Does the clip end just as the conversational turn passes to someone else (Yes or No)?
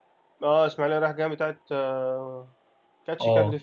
Yes